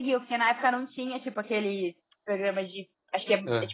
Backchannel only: Yes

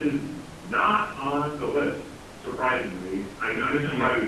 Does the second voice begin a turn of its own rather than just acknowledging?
No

